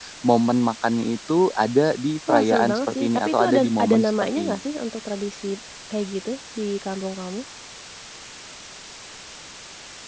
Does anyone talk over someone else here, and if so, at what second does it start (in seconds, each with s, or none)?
2.3 s